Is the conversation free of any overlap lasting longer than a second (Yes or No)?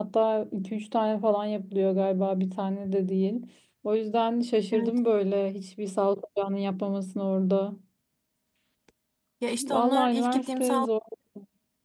No